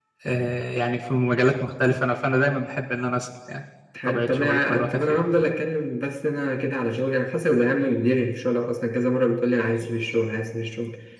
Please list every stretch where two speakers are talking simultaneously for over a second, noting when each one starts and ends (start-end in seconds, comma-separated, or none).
4.0-5.3